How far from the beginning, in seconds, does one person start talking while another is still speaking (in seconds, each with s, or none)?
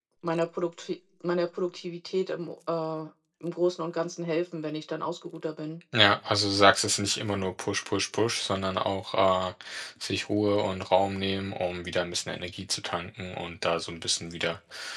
none